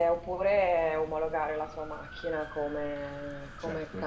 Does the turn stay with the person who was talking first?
Yes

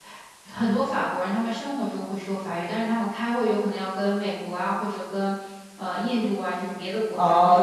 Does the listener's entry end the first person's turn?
Yes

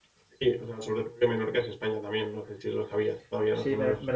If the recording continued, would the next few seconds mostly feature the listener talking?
Yes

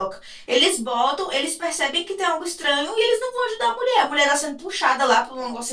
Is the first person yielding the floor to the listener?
No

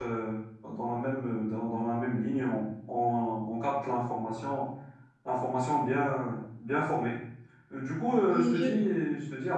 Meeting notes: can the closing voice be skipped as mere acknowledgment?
Yes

